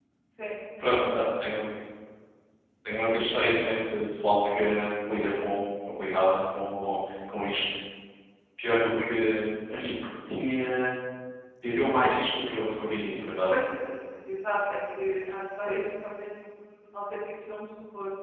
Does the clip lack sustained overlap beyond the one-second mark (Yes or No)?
Yes